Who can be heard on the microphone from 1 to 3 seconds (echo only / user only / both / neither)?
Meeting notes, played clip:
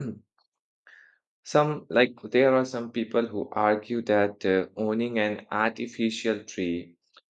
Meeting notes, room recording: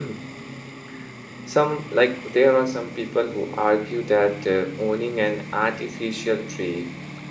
echo only